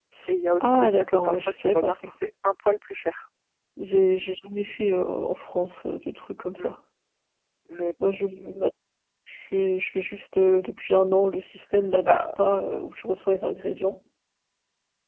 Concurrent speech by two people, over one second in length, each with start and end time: 0.6-2.1

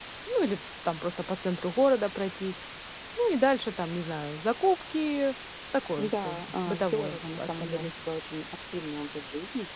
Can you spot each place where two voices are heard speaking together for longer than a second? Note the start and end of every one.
6.0-7.9

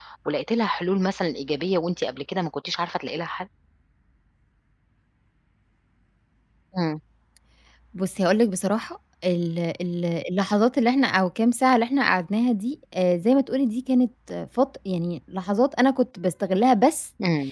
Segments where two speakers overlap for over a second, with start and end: none

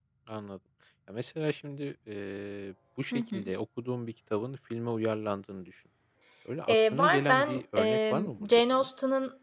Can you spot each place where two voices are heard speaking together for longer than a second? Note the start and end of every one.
6.7-8.9

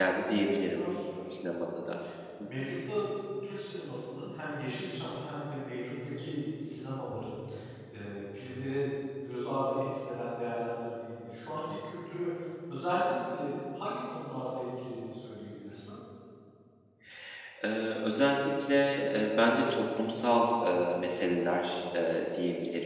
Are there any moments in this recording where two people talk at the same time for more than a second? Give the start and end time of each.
none

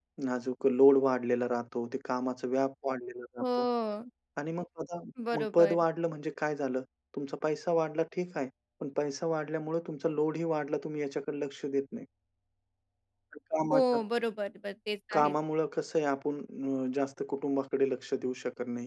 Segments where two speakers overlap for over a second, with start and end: none

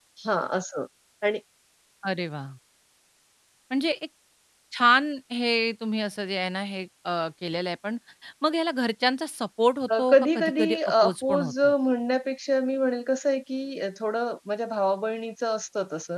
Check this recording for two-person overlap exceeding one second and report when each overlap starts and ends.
10.0-11.7

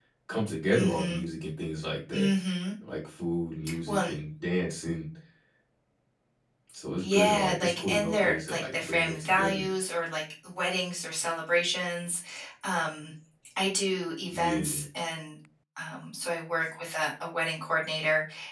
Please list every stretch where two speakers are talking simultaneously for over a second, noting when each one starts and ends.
7.0-9.6

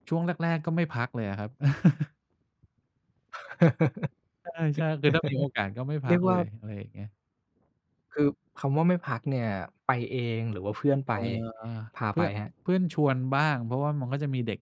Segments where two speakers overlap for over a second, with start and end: none

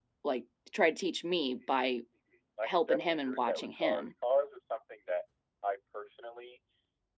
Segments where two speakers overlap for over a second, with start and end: 2.6-4.1

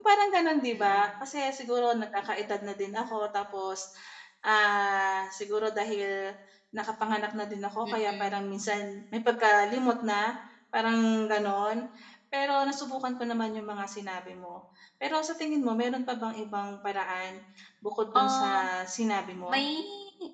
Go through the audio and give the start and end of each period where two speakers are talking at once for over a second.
none

